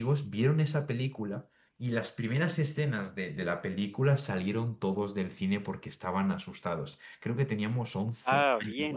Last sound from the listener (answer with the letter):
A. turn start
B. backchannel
B